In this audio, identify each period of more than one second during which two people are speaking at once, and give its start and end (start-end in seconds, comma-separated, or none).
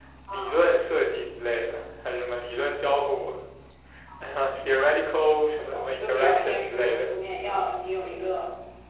5.6-7.1